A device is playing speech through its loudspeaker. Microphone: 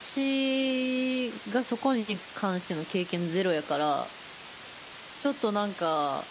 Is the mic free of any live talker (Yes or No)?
No